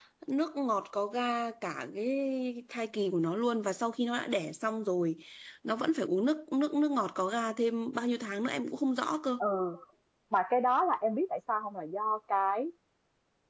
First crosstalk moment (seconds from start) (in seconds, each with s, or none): none